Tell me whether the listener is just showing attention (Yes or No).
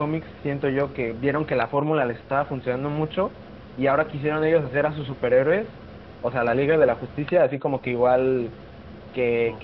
Yes